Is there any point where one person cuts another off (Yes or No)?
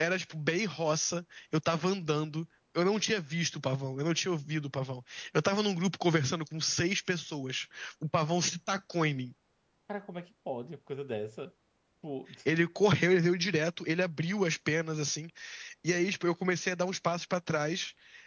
No